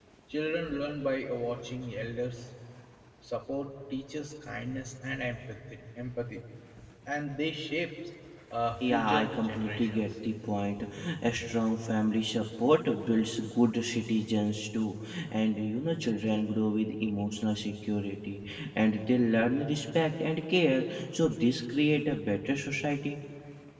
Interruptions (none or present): present